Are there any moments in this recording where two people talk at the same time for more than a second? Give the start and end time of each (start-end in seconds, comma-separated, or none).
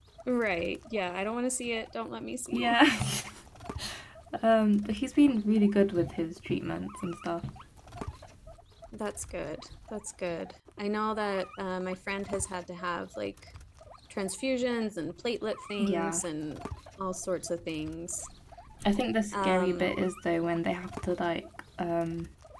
none